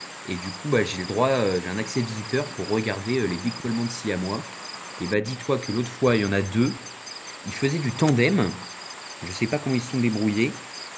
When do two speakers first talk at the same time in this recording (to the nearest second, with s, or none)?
none